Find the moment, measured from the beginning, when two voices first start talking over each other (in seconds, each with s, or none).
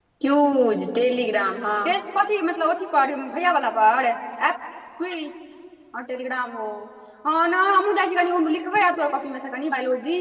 none